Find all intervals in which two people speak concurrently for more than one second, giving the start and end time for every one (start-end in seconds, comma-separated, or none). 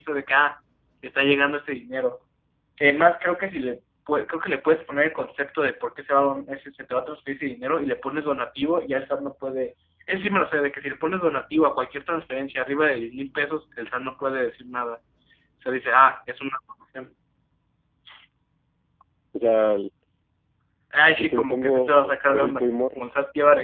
21.2-23.0